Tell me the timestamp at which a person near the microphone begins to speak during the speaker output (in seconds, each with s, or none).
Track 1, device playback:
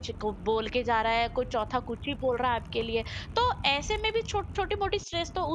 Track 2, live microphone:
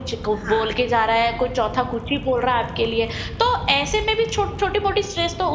0.4 s